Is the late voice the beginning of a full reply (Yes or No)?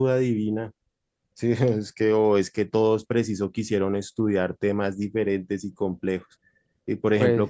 No